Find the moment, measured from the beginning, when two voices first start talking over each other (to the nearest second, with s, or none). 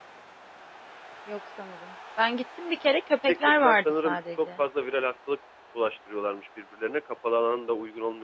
3 s